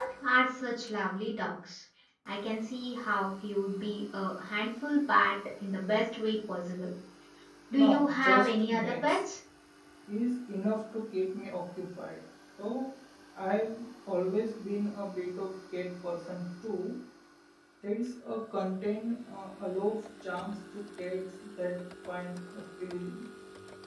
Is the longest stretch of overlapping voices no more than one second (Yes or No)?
No